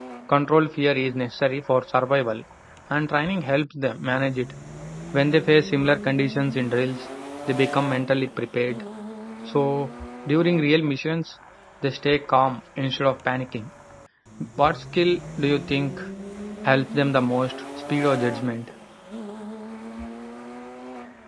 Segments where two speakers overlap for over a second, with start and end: none

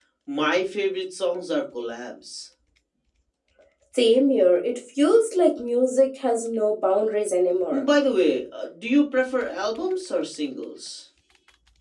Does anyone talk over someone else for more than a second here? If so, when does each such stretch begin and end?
none

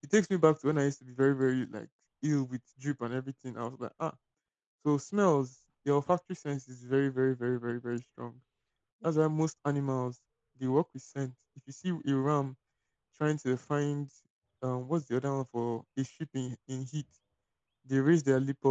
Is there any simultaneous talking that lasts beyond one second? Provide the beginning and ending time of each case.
none

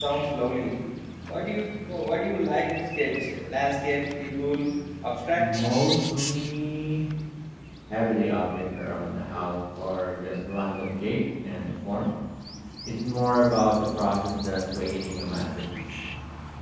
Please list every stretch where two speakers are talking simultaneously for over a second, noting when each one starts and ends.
none

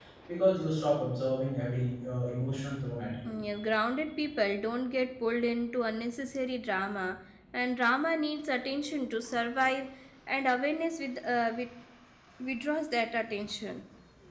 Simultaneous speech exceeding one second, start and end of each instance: none

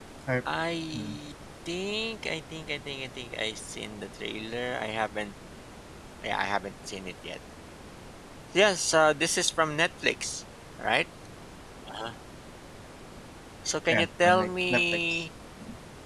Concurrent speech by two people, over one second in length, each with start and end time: 13.9-15.2

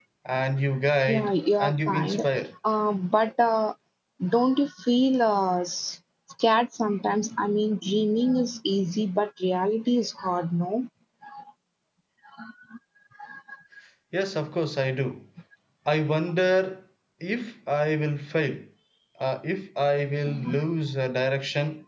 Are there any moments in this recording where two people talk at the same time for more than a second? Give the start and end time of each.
1.1-2.3

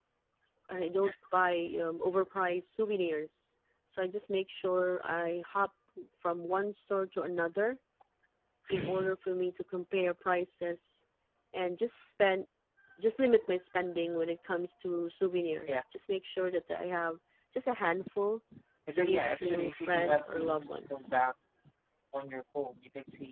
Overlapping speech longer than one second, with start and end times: 18.9-21.2

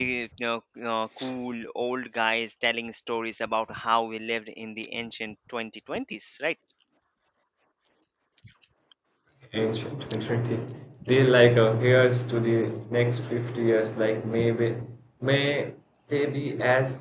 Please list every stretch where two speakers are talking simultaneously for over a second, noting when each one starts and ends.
none

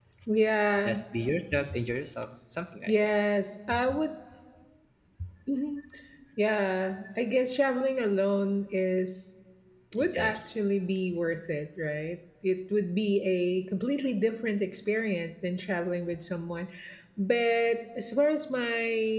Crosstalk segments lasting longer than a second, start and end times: none

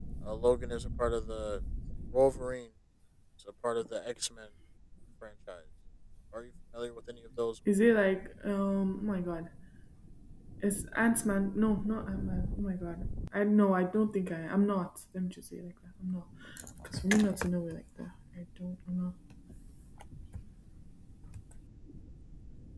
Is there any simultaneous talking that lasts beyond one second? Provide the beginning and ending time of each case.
none

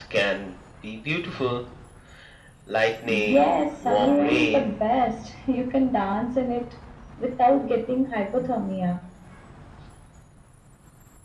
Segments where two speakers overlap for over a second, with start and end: 3.0-4.7

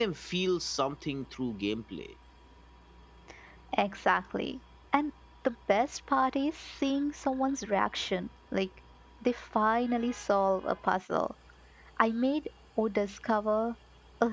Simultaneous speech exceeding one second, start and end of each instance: none

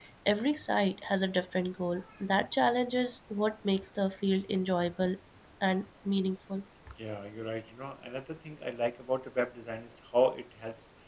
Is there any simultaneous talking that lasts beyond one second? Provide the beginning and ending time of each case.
none

